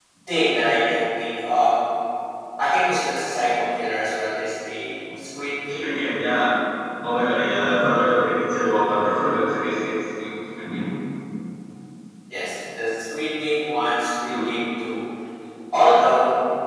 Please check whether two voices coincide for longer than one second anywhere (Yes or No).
No